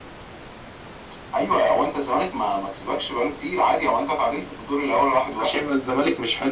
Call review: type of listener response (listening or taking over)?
taking over